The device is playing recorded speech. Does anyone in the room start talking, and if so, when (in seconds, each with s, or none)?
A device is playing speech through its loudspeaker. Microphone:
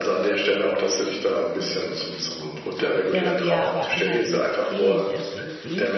3.1 s